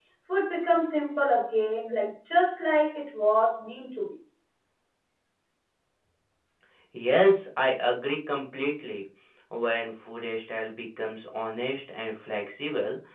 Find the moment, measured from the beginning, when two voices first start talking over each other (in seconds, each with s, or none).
none